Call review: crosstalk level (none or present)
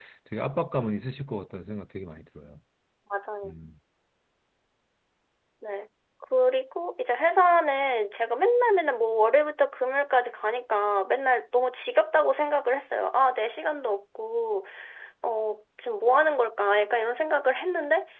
none